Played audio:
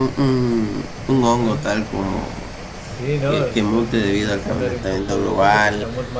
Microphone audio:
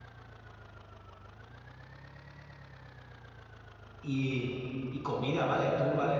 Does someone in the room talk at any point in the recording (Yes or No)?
Yes